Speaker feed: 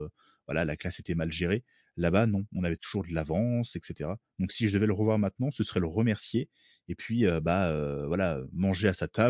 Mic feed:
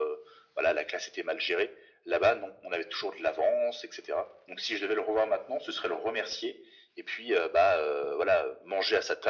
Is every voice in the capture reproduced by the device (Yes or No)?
Yes